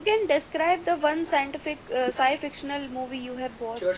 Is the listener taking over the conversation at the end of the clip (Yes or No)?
Yes